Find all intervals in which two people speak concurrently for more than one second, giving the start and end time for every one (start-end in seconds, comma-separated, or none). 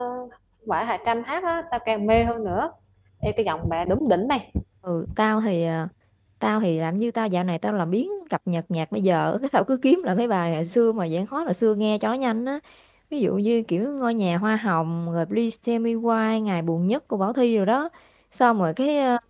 none